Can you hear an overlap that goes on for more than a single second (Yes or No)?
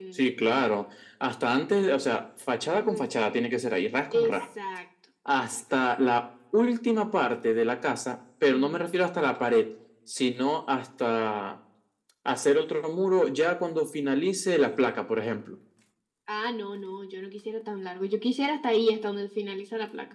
No